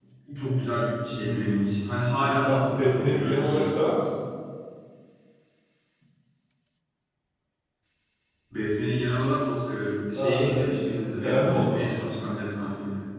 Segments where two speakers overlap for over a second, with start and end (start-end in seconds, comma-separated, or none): 2.3-3.8, 10.1-11.9